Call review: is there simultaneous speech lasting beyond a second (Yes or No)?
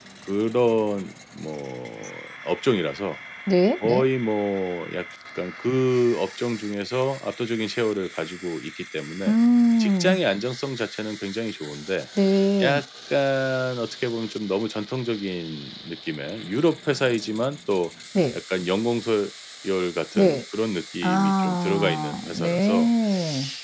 Yes